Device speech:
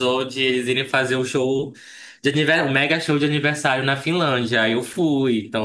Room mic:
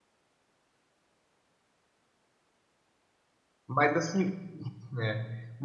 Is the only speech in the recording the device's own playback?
No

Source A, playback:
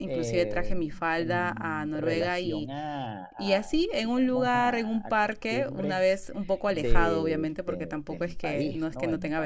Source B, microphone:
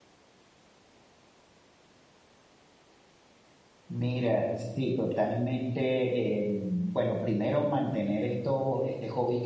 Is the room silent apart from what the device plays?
No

